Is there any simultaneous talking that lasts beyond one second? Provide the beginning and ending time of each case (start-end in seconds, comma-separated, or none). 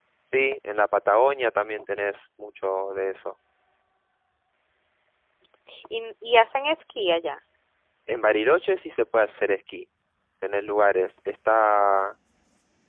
none